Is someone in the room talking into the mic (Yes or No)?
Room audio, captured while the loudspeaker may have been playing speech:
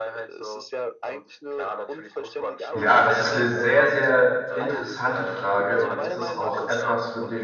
Yes